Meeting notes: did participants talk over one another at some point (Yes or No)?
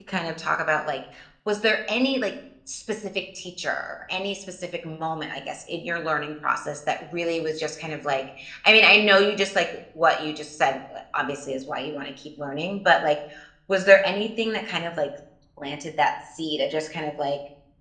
No